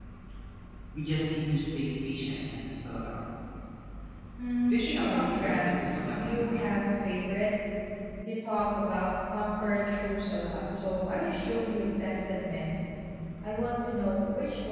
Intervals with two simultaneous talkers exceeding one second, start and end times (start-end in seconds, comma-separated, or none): 4.7-6.8